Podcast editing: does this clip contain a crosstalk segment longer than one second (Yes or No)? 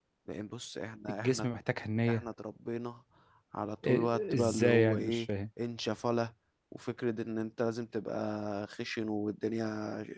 Yes